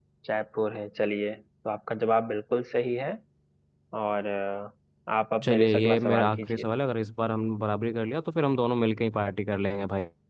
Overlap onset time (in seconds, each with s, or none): 5.4 s